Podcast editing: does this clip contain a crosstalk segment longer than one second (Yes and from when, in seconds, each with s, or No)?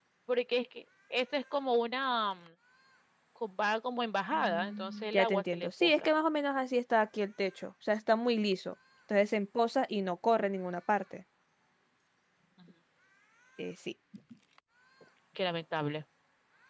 Yes, from 4.3 s